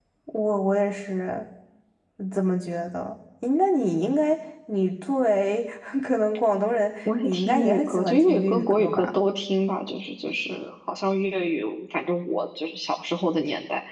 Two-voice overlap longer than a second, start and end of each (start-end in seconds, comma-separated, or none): 7.2-9.2